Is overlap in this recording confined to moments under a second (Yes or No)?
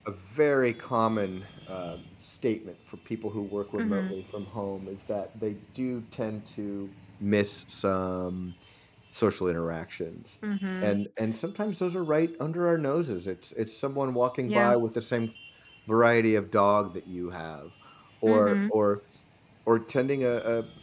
Yes